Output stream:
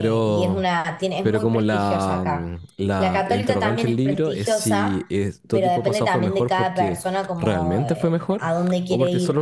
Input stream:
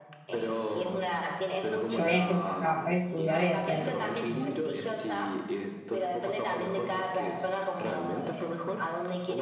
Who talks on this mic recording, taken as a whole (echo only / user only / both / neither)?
both